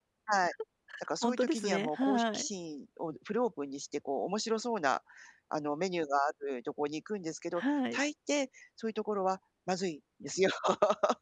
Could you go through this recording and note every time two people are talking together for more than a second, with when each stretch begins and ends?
1.2-2.5

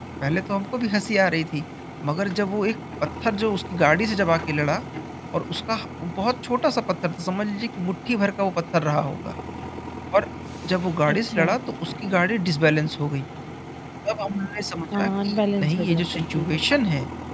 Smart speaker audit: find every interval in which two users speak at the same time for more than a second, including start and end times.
14.9-16.6

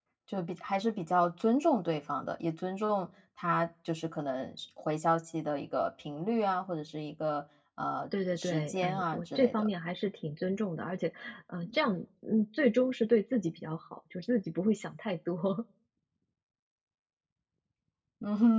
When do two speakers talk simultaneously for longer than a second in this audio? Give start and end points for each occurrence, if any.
8.3-9.7

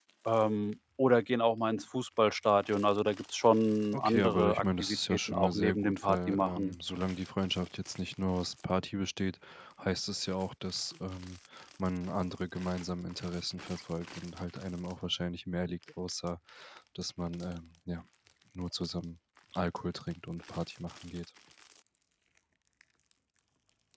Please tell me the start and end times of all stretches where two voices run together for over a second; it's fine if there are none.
3.9-6.8

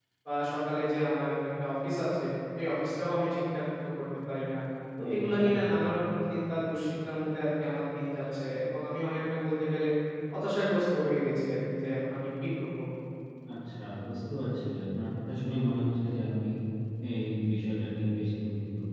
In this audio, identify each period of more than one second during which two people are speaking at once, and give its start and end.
none

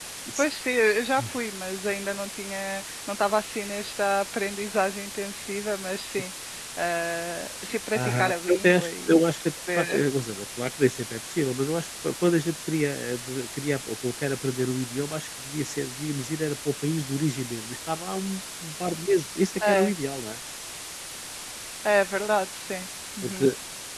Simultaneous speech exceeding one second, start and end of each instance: 7.9-9.2

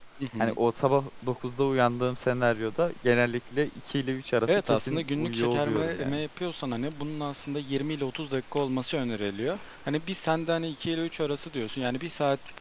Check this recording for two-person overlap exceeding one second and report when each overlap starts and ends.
4.5-6.2

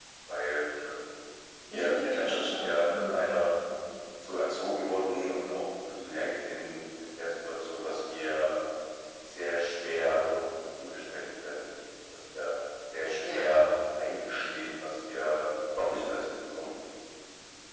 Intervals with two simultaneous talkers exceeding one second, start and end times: 1.7-3.2

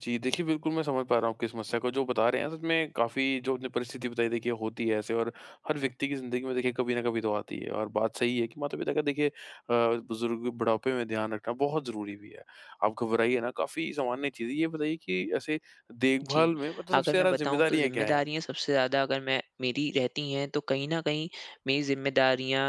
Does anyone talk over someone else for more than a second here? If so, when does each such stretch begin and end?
16.9-18.2

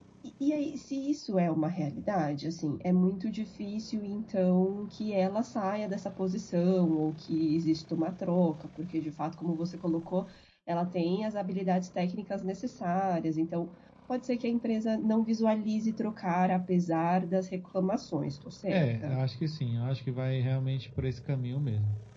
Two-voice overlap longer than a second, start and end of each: none

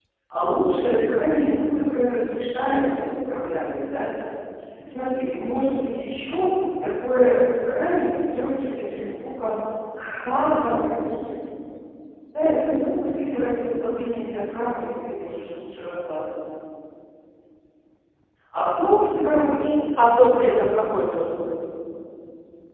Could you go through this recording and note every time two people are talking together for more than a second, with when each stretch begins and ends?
none

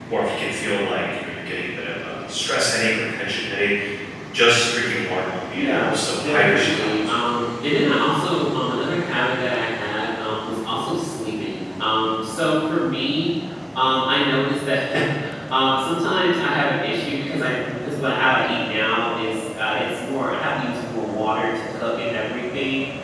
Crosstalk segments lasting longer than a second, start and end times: 5.5-7.4

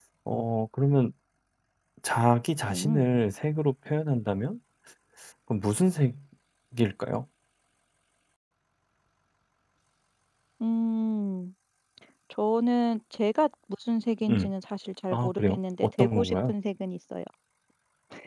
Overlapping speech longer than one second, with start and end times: 15.1-16.5

